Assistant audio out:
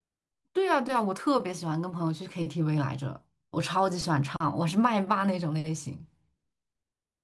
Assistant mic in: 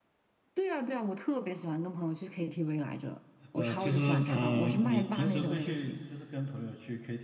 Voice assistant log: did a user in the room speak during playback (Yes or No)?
Yes